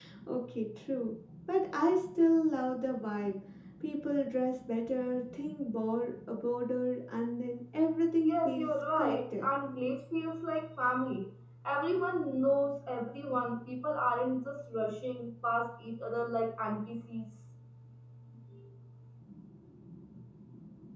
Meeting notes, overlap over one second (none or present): present